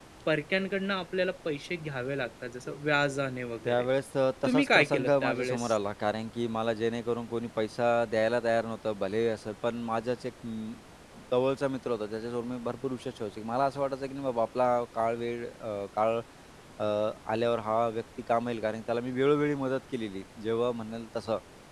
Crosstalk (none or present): present